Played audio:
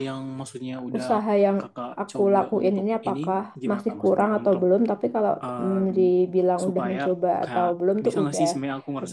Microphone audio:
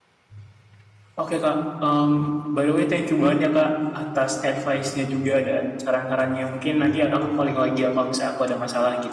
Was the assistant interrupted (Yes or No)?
Yes